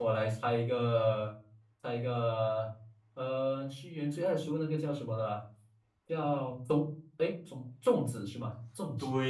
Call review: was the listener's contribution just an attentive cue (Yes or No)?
No